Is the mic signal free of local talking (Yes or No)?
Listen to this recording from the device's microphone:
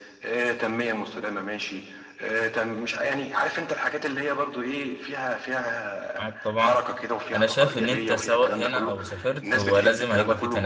No